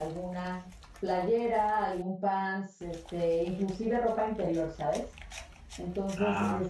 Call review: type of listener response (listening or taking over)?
listening